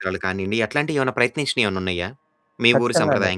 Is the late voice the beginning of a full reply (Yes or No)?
Yes